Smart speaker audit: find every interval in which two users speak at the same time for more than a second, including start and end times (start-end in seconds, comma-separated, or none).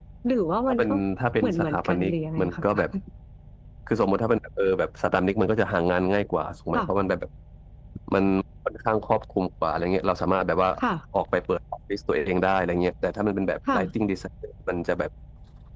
1.4-2.6